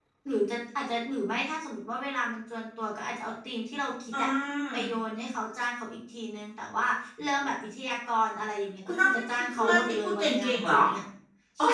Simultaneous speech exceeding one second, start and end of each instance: 8.8-10.8

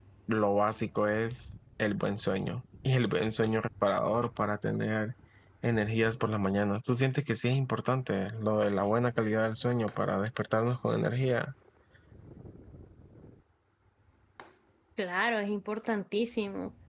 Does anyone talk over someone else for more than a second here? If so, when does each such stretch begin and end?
none

